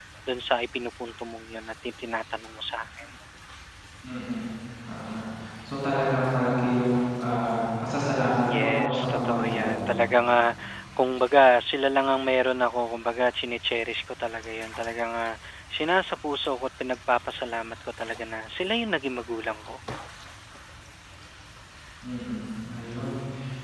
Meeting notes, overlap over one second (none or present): present